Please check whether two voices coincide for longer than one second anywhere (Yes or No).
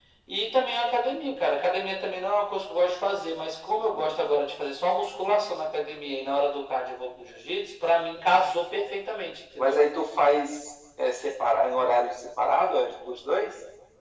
No